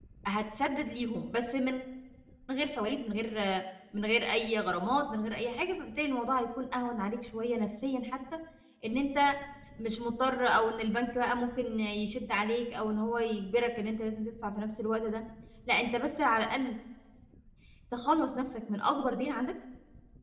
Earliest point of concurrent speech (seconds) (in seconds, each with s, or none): none